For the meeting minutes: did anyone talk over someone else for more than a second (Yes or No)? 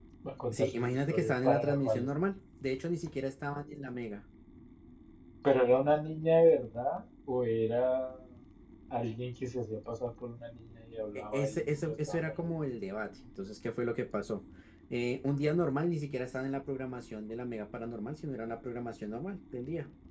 Yes